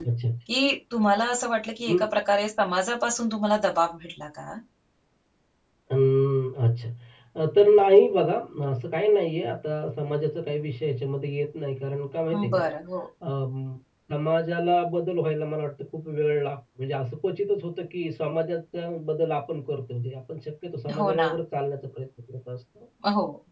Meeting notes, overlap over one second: none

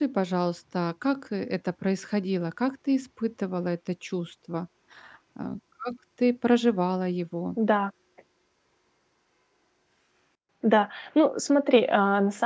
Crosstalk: none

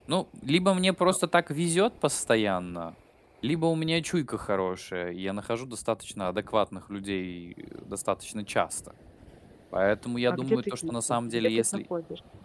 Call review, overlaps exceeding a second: present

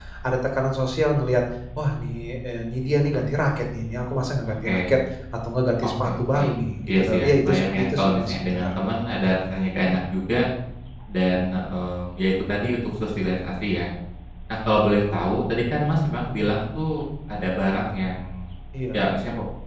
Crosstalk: present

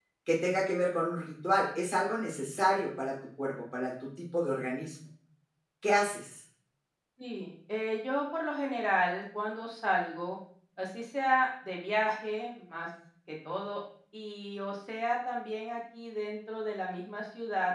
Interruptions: none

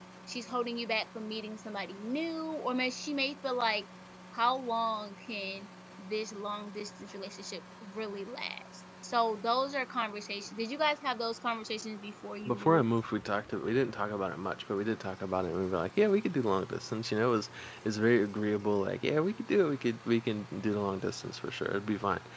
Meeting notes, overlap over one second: none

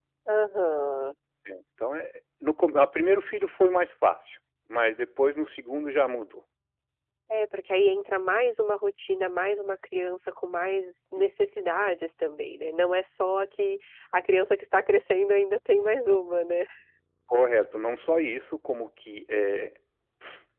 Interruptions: none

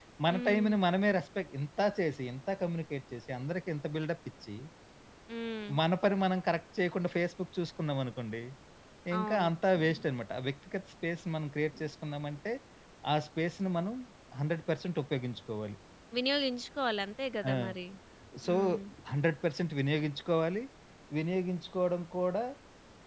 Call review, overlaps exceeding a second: none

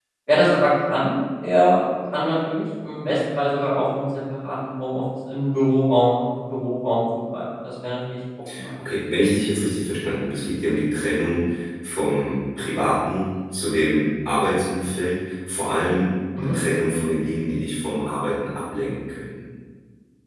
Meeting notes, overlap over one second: none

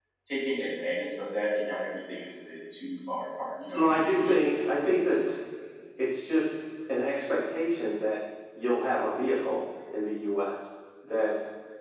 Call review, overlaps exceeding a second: present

